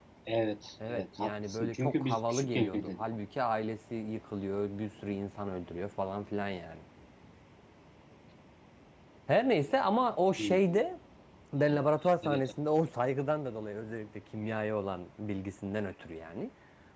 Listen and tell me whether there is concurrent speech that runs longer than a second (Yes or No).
Yes